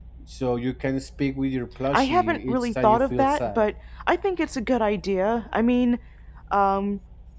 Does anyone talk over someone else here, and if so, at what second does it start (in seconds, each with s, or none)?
1.9 s